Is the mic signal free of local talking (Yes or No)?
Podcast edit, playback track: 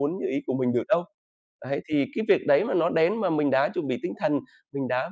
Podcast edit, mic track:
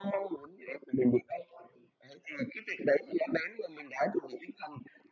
Yes